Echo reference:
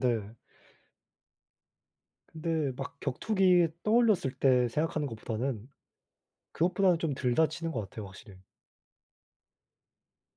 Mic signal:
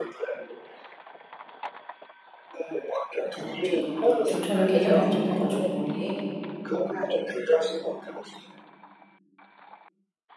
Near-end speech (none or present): present